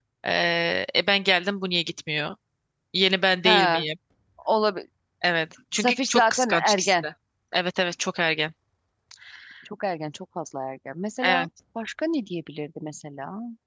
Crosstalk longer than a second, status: present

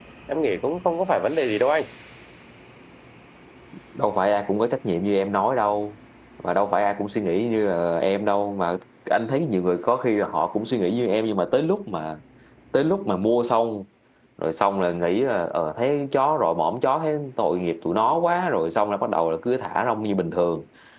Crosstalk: none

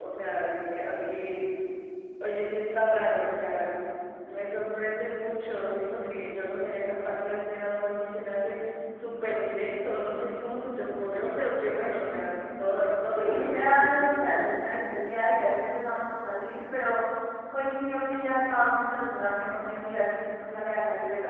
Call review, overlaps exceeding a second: present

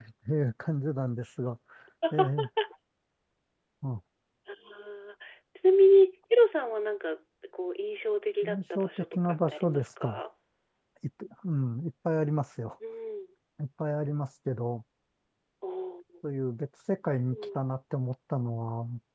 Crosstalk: present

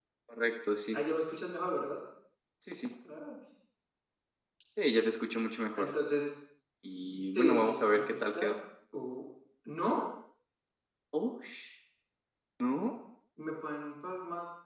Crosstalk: present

